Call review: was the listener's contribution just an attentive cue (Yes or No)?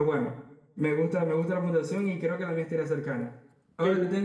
No